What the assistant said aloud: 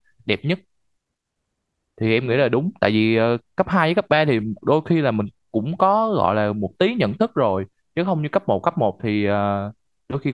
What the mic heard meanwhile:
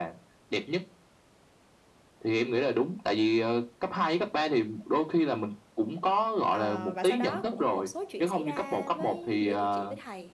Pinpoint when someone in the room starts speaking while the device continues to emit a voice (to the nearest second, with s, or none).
6 s